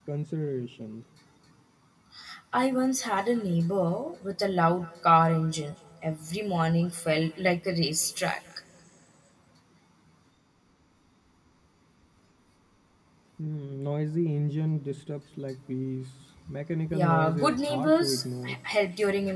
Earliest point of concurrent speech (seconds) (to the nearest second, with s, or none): 17 s